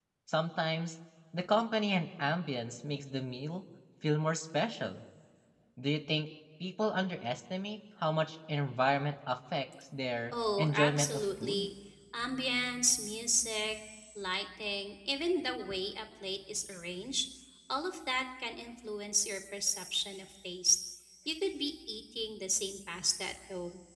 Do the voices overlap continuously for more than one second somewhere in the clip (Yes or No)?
Yes